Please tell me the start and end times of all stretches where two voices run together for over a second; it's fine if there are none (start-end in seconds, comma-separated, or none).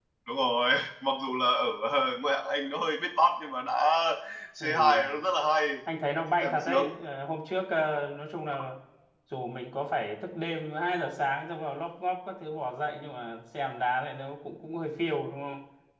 none